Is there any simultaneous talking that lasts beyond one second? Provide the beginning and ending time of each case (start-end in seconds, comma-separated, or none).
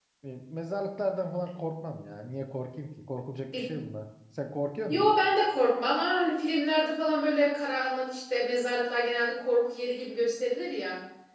none